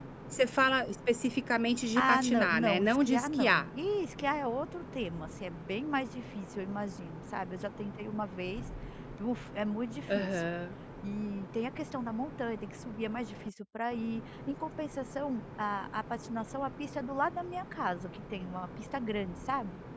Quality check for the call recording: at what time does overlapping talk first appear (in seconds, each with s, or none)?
2.0 s